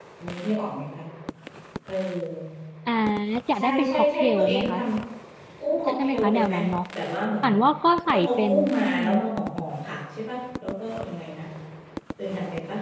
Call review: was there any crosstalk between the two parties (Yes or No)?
Yes